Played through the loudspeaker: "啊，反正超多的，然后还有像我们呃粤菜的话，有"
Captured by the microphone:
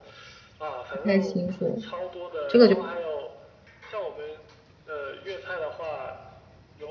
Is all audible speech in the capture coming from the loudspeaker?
No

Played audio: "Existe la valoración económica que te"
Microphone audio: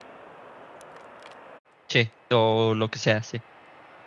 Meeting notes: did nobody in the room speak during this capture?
No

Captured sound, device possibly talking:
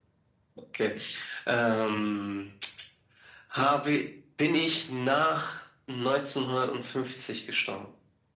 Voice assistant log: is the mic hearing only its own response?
Yes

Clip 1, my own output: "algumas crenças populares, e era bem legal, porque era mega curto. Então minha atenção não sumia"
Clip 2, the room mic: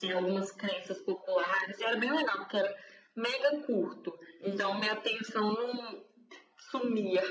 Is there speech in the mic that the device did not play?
Yes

